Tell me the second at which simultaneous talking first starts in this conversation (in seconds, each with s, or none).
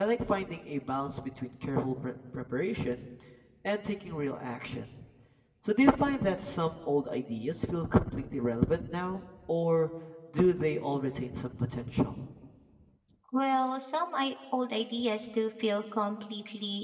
none